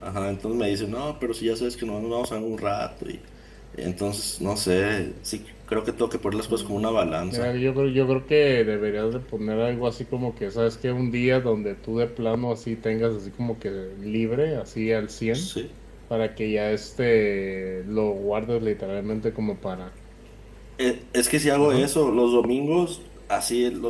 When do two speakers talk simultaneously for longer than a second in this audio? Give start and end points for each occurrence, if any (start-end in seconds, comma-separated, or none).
none